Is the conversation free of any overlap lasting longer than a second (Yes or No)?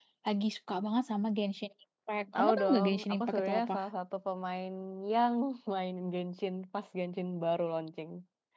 No